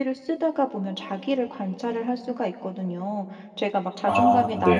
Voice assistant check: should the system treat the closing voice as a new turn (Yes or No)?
No